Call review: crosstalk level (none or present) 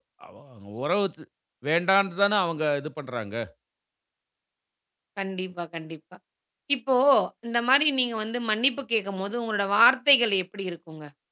none